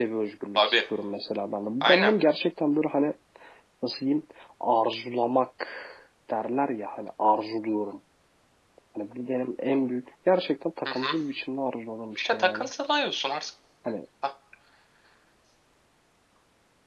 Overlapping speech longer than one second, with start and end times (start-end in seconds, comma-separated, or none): none